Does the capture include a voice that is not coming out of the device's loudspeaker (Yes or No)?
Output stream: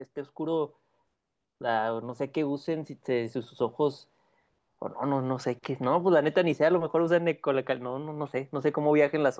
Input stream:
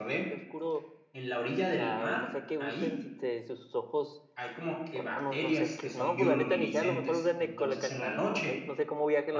Yes